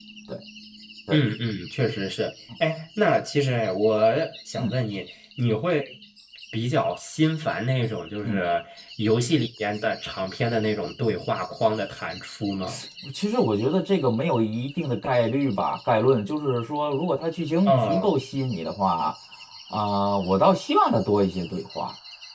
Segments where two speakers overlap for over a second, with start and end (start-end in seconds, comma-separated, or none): none